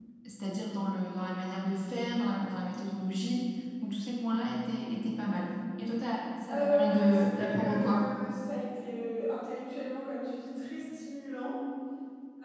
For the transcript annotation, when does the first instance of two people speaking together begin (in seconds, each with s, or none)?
6.5 s